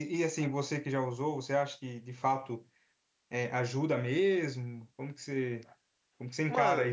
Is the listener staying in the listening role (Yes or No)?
No